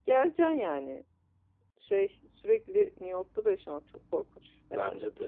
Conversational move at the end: taking over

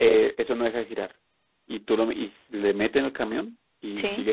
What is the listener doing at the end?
listening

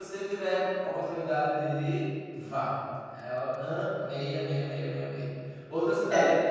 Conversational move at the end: listening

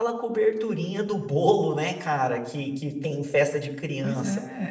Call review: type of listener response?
taking over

